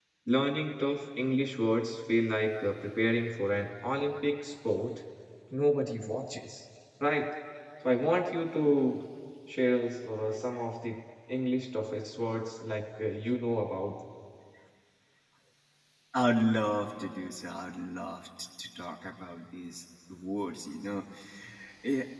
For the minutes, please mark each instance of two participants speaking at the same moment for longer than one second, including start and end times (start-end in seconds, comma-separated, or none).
none